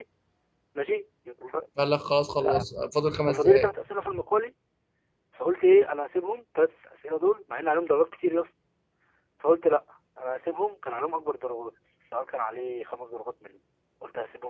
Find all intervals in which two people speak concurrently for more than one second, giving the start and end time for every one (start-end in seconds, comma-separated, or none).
none